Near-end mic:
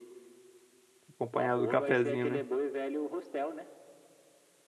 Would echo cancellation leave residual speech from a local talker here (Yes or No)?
Yes